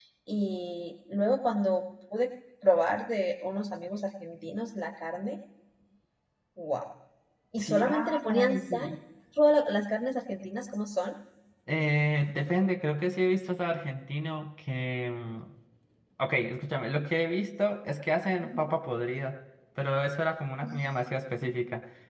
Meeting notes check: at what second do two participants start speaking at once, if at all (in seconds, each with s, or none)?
7.6 s